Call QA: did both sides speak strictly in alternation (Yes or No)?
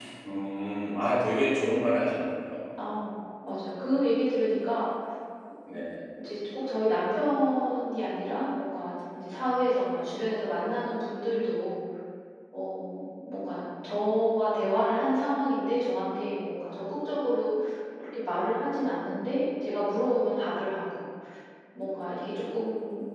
Yes